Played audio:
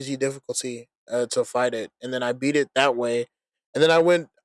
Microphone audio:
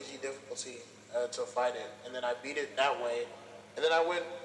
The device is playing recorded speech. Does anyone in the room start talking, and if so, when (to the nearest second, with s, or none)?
none